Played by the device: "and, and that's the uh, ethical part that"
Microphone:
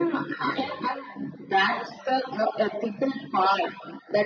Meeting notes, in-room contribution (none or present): present